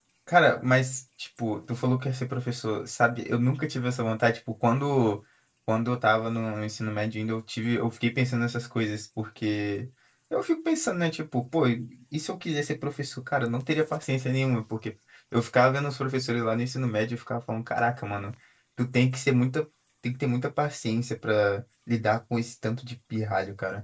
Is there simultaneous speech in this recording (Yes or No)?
No